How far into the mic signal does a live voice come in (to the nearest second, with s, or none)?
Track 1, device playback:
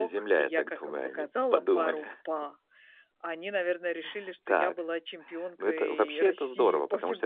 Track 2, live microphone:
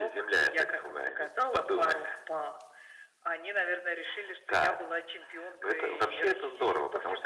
none